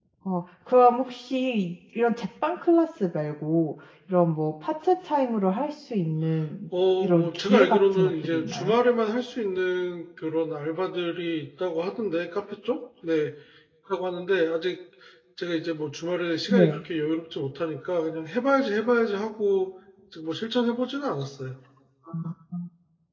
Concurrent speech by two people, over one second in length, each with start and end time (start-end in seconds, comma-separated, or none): 7.0-8.8